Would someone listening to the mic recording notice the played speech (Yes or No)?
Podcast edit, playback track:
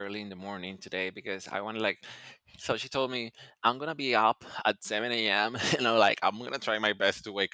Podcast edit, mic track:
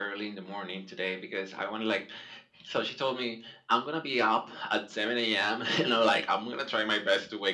Yes